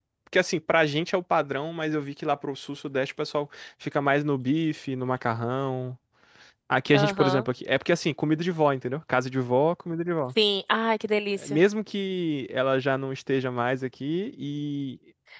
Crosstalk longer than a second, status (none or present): none